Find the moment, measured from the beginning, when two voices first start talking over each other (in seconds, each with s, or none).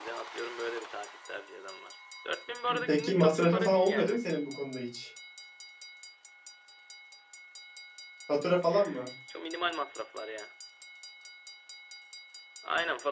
2.9 s